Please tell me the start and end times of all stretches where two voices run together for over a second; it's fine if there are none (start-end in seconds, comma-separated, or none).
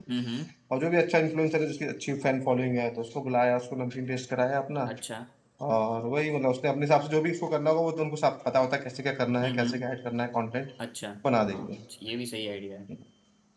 none